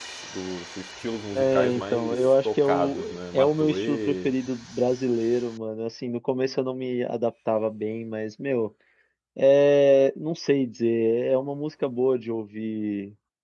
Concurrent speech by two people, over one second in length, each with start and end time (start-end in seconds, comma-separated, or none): 1.3-4.3